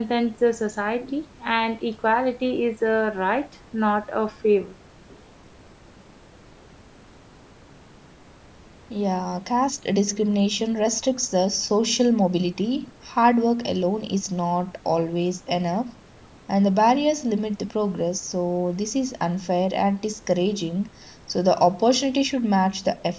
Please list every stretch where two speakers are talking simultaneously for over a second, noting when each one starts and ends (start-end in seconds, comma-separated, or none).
none